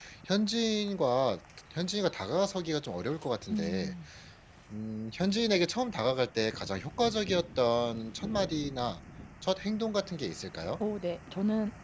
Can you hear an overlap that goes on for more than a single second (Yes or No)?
No